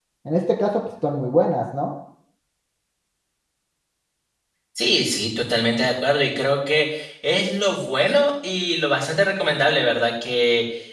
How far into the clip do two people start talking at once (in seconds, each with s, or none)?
none